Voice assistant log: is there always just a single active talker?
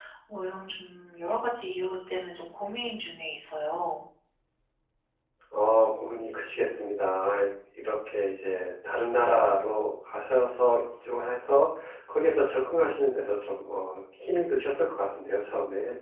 Yes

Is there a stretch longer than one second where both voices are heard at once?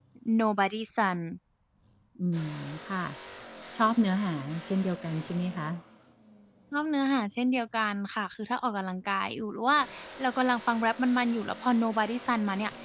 No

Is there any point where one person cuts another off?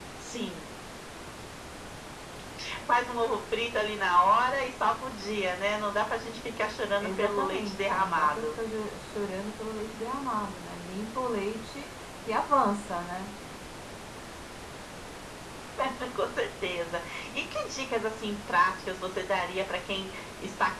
Yes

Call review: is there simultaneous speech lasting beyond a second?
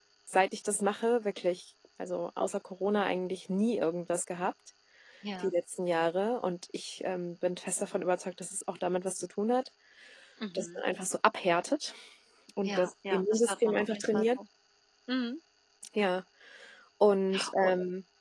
Yes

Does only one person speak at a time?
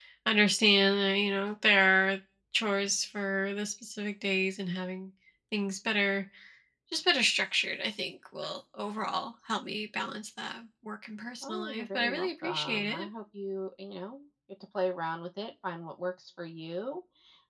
No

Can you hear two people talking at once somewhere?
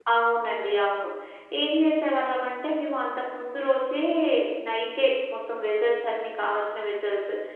No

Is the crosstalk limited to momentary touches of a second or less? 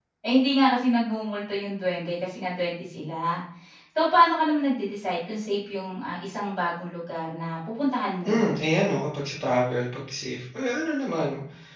Yes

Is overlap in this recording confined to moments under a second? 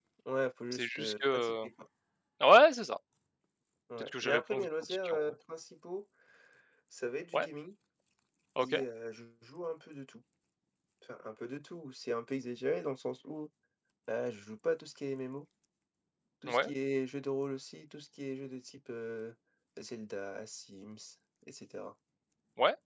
No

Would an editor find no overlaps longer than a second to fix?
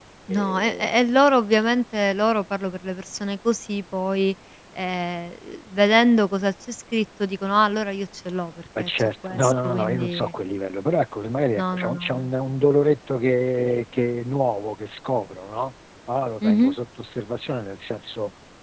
No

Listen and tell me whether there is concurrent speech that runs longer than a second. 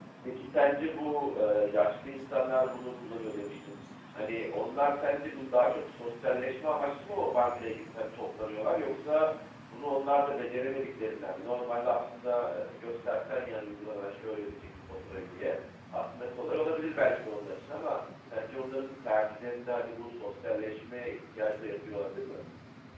No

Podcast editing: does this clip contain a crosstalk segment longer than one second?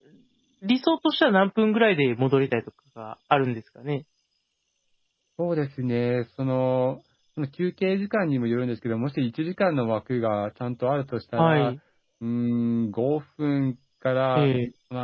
No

